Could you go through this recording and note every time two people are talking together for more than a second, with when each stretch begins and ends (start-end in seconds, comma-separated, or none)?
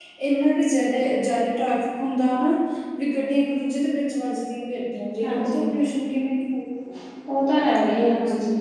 none